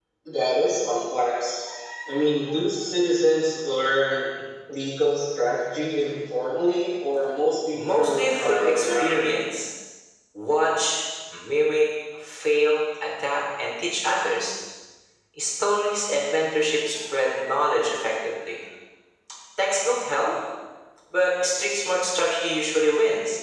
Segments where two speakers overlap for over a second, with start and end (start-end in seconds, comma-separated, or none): 7.7-9.2